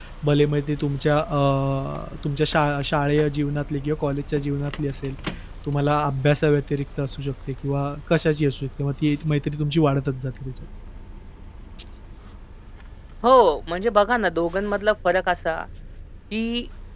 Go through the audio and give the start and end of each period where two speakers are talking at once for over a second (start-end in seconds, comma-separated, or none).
none